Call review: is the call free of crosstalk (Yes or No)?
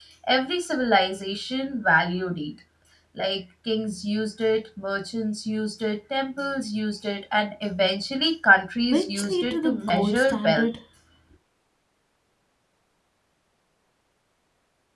No